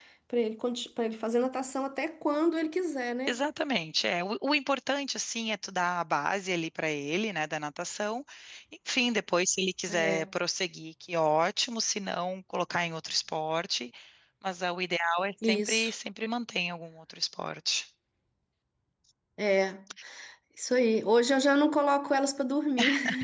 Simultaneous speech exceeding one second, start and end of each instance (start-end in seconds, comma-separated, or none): none